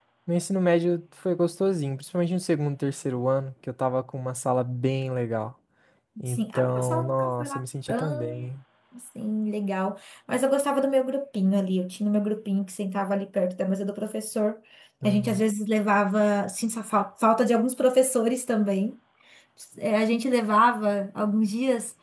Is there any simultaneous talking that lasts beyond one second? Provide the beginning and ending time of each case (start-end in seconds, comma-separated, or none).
6.2-7.6